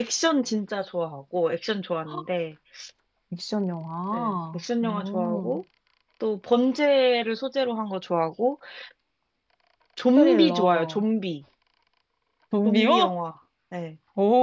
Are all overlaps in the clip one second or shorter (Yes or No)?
No